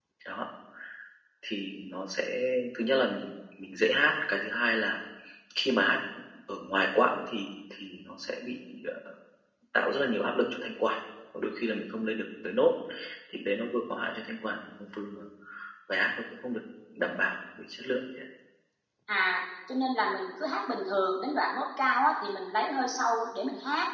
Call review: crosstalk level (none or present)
none